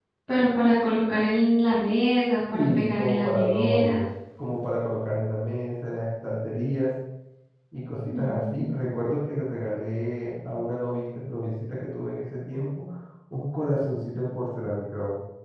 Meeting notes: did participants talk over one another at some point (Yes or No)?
Yes